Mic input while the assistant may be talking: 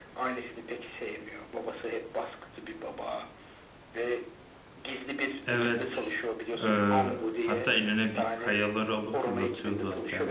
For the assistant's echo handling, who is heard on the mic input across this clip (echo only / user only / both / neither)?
both